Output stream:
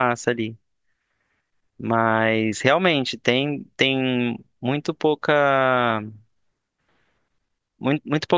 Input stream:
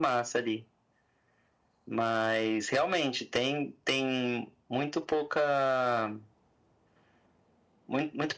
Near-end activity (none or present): none